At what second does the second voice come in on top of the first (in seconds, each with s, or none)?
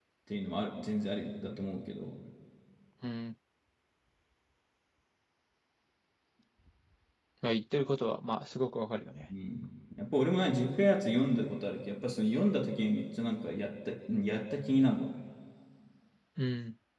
none